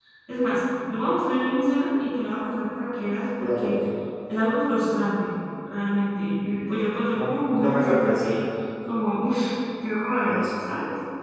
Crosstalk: present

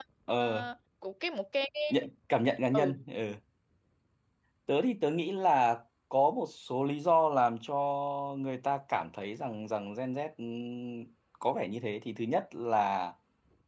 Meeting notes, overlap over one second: none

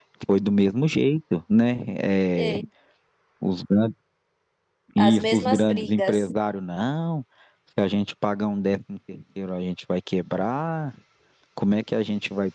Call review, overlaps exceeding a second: present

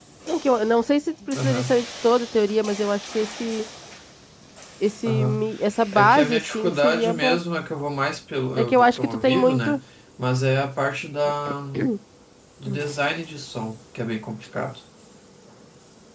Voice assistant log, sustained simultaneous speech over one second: present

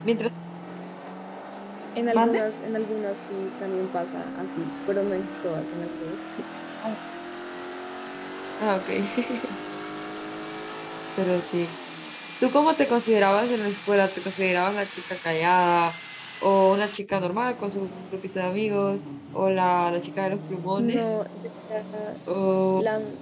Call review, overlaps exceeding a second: none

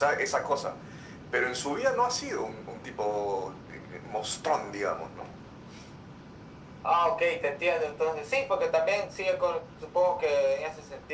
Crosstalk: none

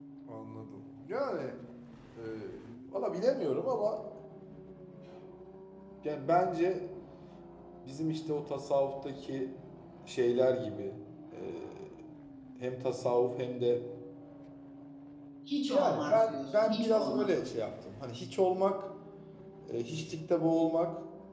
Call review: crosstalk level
present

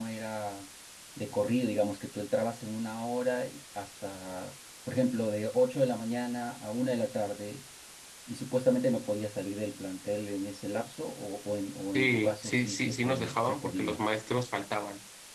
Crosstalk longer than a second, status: present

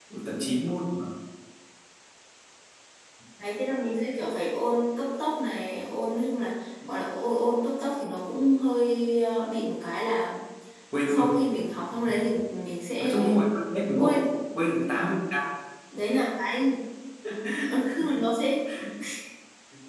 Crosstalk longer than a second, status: none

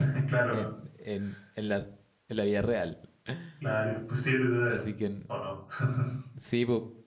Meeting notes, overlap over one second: none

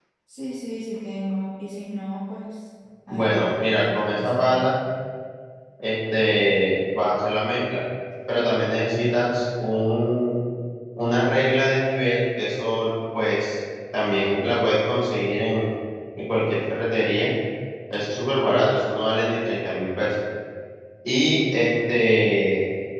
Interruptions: present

